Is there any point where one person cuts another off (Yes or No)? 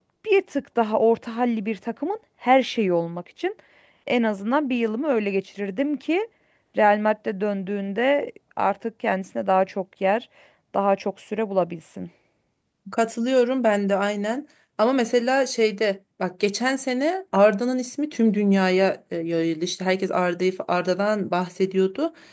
No